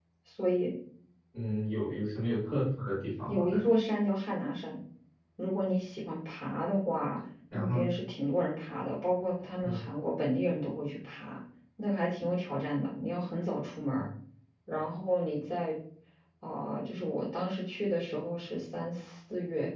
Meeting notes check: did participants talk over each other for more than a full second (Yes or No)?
No